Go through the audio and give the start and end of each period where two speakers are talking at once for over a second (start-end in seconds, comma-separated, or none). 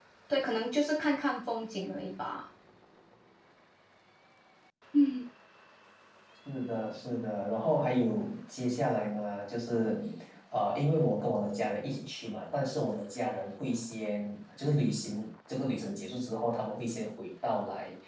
none